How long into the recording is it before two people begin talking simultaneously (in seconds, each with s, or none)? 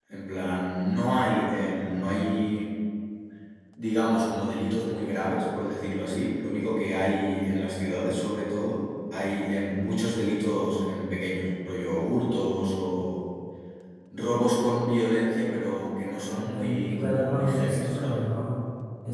16.3 s